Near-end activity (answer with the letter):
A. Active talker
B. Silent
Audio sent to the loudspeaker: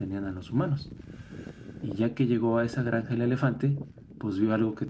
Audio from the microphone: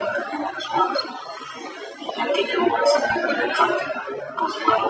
B